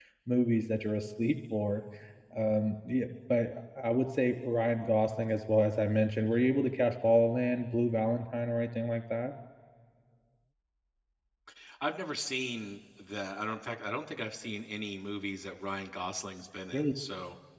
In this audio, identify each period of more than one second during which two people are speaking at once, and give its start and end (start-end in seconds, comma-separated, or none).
none